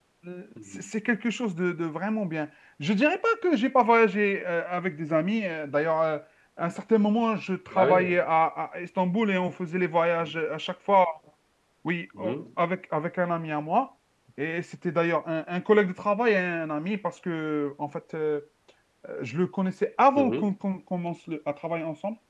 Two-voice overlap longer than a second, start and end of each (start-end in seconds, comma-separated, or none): none